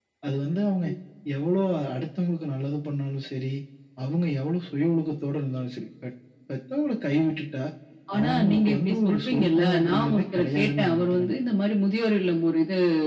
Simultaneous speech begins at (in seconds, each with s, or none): 8.2 s